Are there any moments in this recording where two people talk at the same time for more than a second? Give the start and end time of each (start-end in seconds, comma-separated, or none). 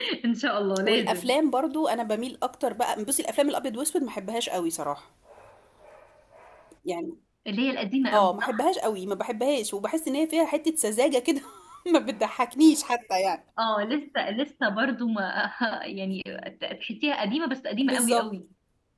none